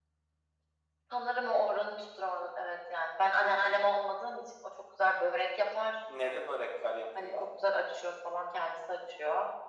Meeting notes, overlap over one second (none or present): none